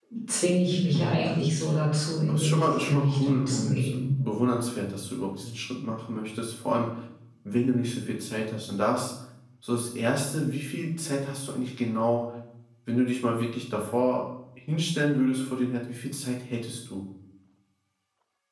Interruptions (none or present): present